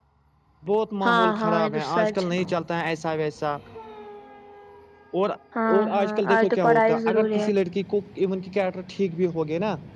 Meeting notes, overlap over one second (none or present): present